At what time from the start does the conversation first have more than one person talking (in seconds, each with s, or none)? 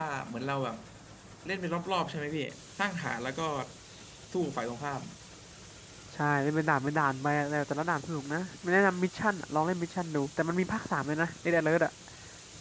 none